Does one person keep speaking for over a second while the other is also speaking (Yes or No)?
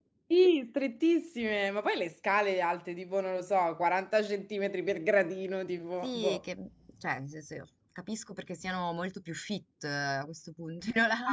No